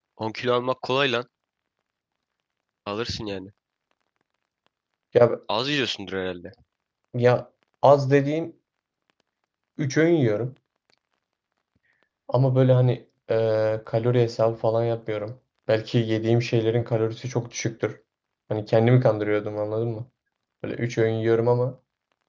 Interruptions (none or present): none